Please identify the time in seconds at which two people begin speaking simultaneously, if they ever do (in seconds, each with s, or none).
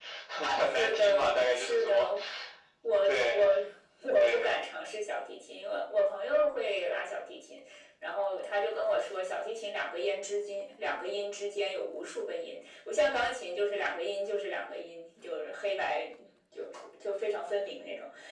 0.6 s